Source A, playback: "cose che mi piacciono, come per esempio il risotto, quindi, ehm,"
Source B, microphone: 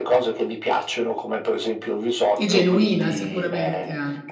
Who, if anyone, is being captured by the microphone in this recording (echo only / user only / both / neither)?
both